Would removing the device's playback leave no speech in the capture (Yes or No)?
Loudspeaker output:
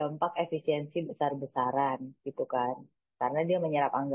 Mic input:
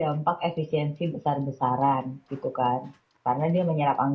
Yes